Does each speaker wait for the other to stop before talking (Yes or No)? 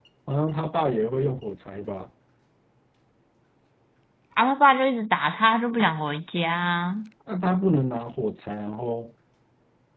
Yes